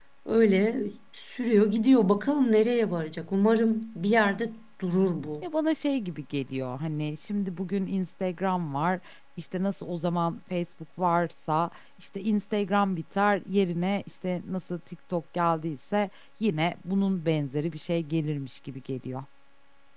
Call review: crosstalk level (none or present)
none